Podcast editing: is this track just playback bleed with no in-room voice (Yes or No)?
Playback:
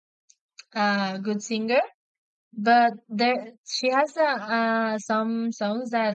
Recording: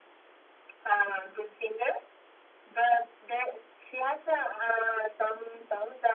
Yes